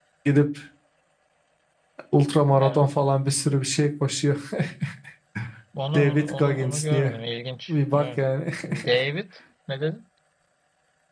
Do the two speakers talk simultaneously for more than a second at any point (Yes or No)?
Yes